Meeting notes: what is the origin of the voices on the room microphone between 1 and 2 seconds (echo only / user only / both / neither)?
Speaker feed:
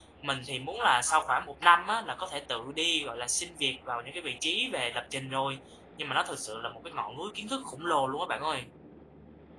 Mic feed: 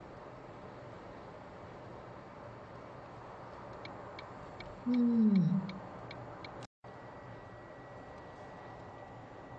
neither